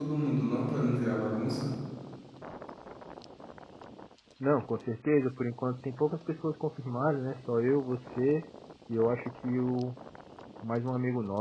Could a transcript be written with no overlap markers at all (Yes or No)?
Yes